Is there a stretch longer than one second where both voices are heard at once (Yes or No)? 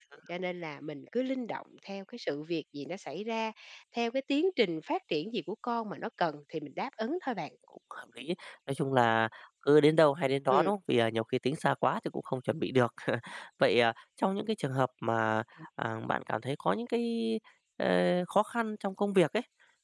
No